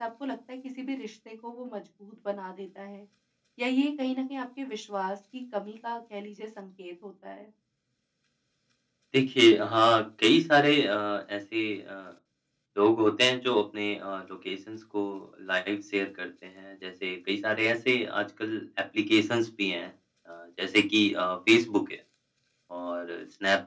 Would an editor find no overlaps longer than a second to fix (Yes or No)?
Yes